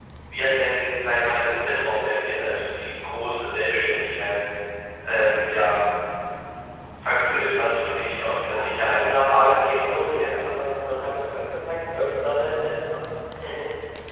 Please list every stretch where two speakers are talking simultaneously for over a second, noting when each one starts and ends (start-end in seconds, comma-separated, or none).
8.4-10.6